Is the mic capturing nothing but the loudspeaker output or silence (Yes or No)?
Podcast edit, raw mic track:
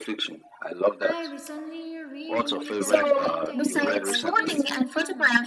No